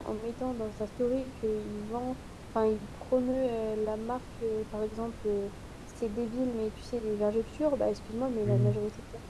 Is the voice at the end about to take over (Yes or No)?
No